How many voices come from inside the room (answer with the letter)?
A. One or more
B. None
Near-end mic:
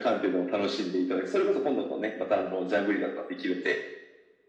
B